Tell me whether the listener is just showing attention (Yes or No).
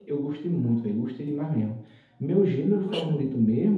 Yes